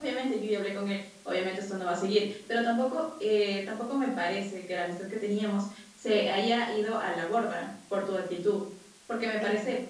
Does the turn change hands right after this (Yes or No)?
No